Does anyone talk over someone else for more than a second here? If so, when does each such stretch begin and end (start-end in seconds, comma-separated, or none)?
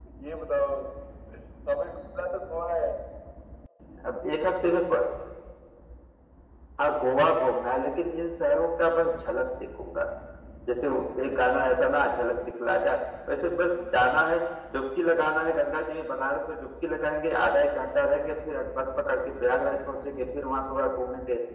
none